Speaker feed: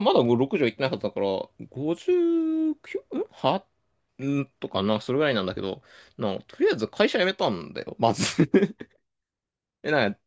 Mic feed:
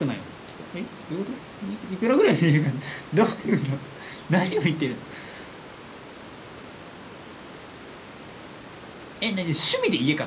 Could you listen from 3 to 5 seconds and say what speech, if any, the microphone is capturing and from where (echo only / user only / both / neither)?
user only